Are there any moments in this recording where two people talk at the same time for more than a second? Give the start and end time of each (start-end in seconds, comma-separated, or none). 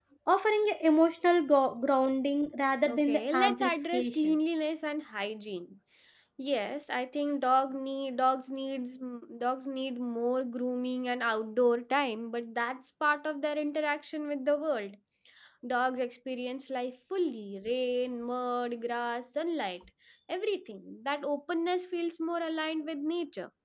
2.9-4.3